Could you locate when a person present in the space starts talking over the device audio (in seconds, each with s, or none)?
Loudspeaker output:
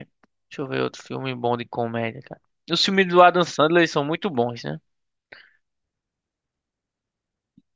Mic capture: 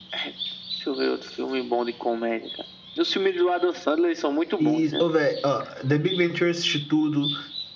4.6 s